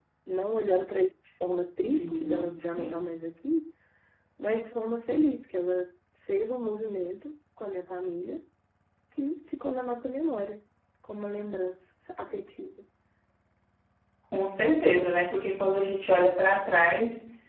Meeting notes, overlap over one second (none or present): present